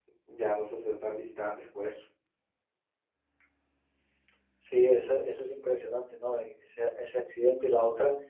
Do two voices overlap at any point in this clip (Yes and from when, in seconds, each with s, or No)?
No